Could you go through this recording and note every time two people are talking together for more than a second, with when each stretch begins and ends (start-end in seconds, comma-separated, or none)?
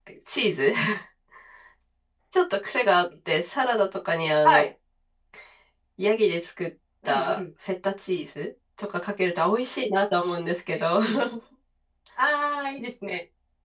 none